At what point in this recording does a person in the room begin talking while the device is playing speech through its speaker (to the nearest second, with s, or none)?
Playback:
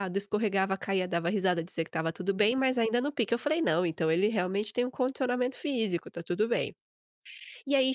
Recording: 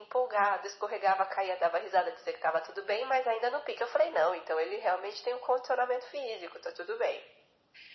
none